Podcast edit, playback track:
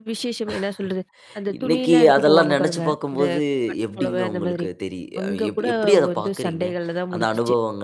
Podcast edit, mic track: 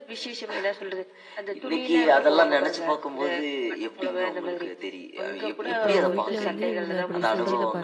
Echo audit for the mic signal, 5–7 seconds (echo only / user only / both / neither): both